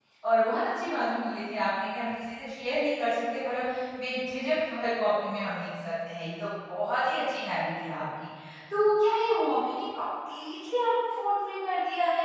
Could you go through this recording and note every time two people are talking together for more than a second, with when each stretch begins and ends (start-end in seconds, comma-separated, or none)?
none